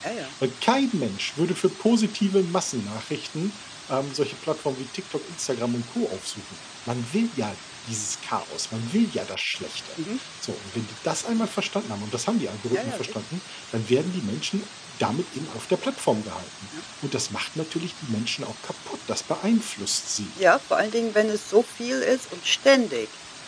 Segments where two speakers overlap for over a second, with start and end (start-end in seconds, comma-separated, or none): none